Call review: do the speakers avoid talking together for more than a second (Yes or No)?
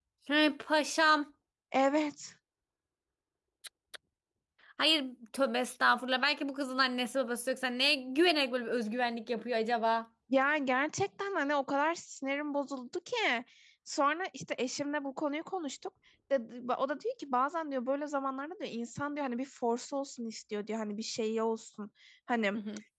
Yes